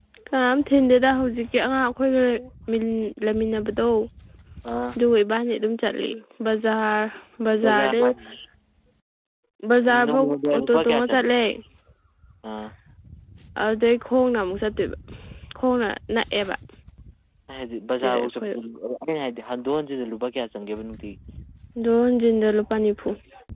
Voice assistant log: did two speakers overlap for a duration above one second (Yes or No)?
Yes